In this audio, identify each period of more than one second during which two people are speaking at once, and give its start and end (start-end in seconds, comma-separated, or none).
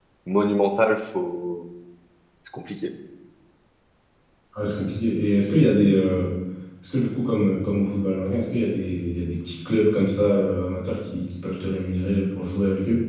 none